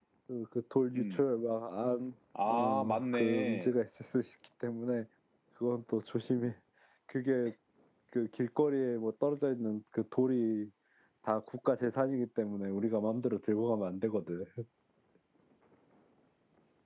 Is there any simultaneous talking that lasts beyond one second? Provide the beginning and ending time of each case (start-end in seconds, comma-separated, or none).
2.5-3.8